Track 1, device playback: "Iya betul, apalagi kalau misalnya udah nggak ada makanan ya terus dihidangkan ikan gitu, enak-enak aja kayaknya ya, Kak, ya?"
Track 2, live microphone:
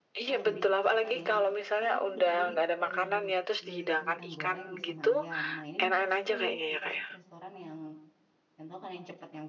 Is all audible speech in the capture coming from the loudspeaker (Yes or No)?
No